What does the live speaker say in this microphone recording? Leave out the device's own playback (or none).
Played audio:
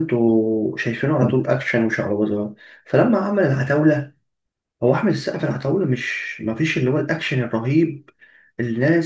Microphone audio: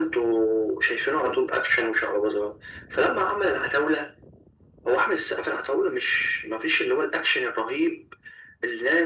none